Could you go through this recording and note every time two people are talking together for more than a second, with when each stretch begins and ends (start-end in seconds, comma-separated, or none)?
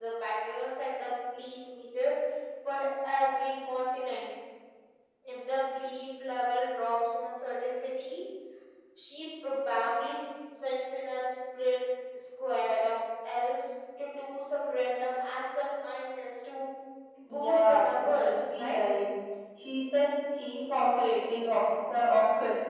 17.3-18.8